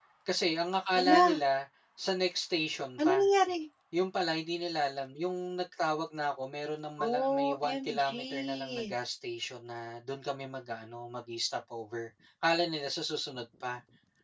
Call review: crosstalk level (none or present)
present